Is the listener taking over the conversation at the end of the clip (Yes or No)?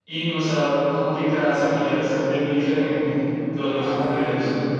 Yes